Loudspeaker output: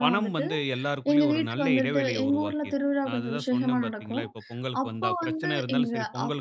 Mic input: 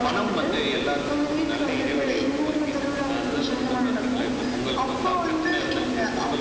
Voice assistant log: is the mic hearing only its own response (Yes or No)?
Yes